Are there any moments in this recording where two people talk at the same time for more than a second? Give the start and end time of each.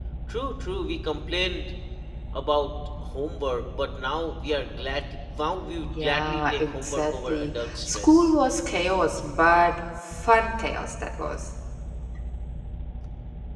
5.8-8.3

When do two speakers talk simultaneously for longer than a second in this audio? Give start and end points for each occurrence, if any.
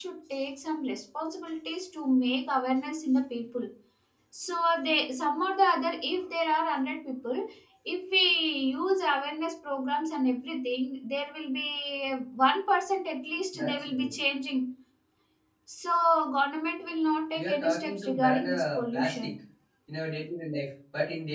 17.4-19.3

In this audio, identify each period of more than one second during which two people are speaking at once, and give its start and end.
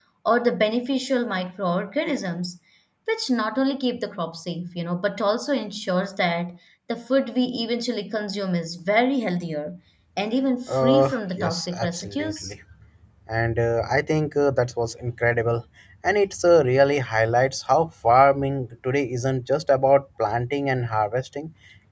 10.7-12.5

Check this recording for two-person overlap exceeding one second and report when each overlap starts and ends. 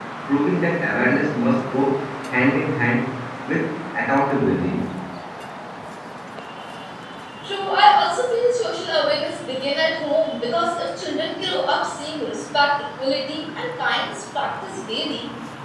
none

